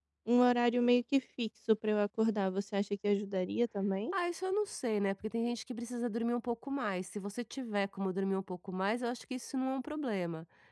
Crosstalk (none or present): none